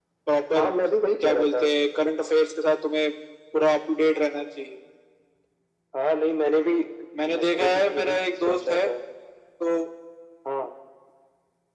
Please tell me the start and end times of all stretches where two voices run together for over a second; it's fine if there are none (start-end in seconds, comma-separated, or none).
7.3-8.8